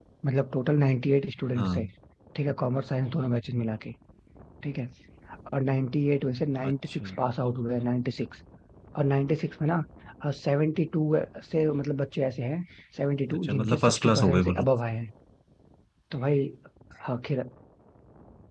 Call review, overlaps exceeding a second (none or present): present